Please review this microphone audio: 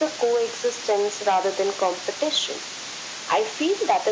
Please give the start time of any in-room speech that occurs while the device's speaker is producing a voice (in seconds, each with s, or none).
none